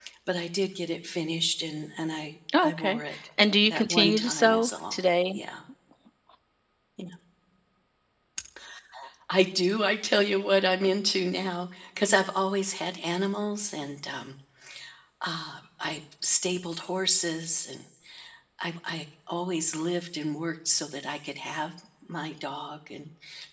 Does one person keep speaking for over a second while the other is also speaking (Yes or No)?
Yes